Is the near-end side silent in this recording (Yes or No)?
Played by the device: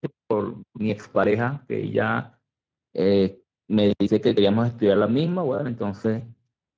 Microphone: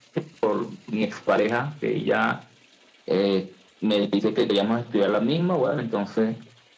Yes